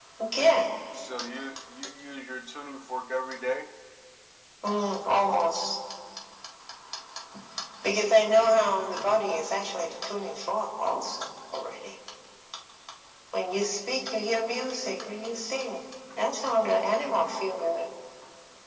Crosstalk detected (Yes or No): No